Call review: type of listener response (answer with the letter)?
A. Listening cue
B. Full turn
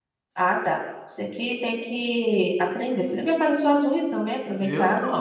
B